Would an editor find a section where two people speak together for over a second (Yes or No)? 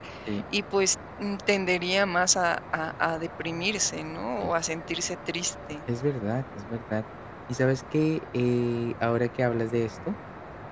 No